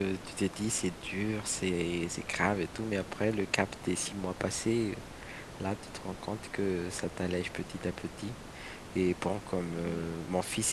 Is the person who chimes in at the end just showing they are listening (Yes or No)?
Yes